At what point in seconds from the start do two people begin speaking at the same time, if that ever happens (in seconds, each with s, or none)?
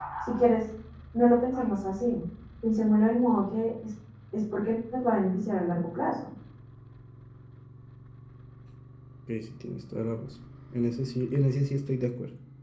none